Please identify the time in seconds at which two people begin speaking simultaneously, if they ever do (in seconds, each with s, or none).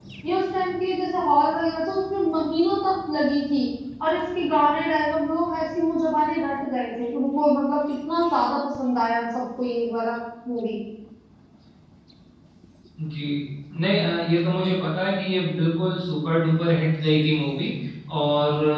none